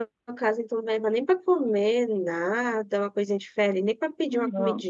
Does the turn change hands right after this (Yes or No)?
Yes